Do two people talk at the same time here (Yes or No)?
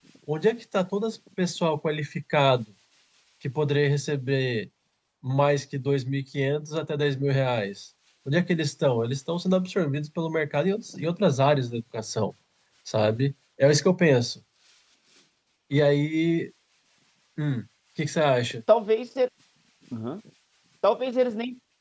No